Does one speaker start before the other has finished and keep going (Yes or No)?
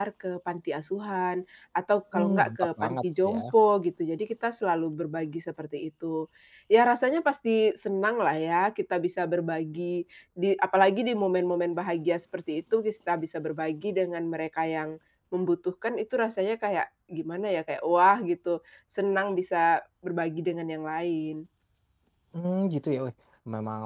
Yes